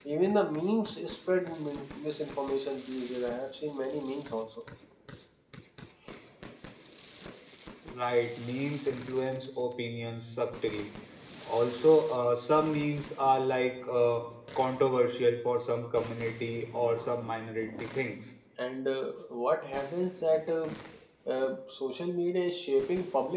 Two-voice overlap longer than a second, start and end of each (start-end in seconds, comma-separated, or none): none